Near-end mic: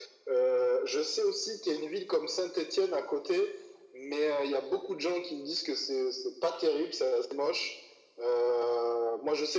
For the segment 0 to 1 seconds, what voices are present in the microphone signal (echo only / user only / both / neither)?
echo only